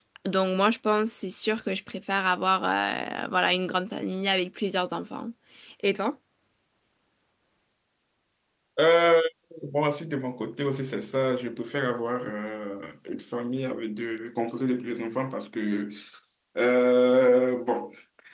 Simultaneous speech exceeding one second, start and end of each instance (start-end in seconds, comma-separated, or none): none